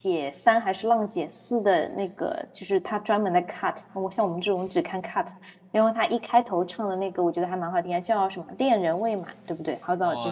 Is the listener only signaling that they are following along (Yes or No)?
No